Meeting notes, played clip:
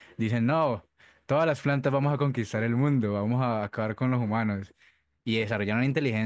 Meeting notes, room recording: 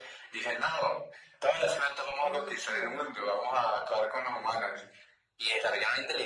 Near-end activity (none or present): present